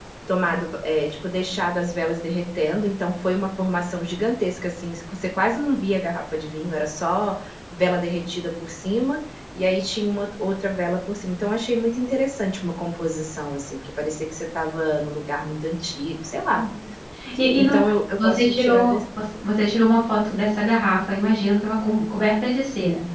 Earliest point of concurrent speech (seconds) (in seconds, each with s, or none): 17.6 s